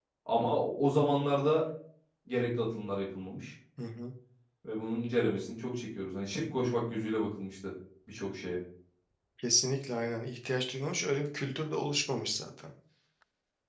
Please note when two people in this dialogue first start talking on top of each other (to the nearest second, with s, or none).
none